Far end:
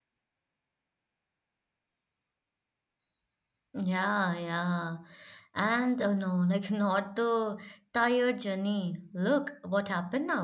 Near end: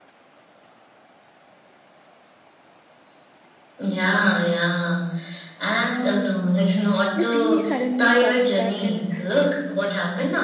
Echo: present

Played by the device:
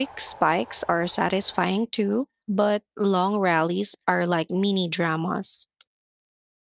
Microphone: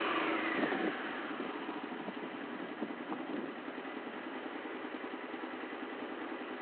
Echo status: none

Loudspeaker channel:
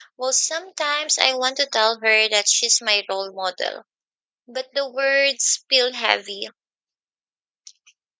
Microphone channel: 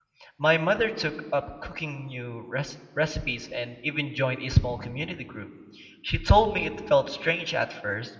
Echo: none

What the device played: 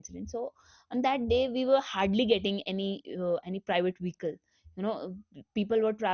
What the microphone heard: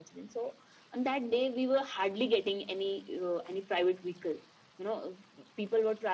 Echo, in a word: present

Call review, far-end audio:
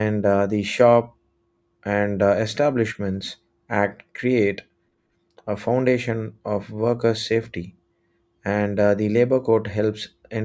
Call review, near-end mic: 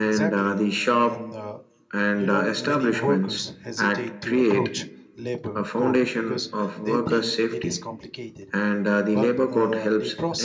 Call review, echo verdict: present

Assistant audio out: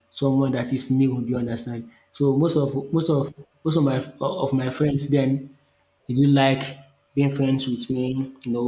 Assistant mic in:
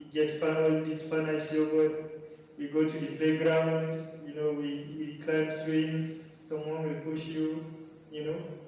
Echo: none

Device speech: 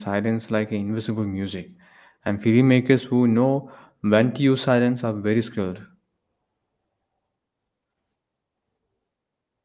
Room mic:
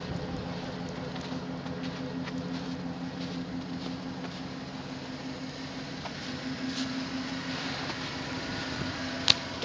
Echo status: none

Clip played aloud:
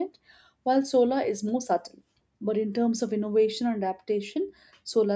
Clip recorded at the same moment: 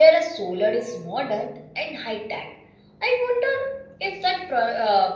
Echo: none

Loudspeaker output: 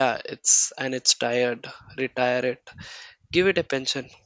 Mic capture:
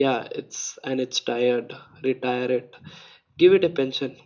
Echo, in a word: present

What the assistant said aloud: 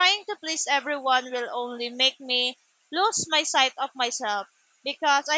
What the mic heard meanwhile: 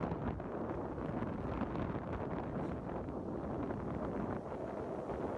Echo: none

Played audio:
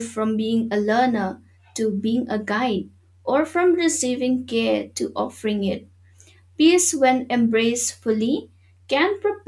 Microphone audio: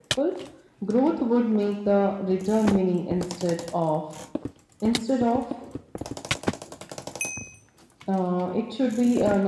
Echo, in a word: none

